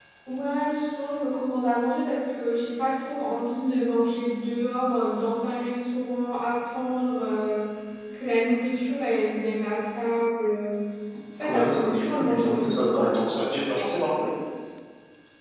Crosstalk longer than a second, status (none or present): present